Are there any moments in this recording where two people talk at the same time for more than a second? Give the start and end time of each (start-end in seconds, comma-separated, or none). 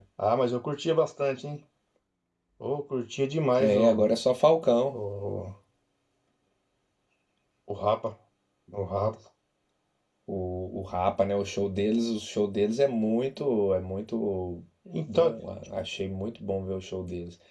none